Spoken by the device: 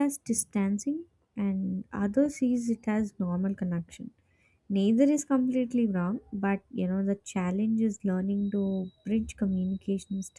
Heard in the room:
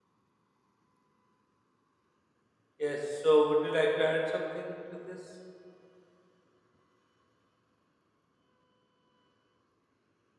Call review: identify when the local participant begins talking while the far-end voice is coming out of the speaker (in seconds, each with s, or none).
2.8 s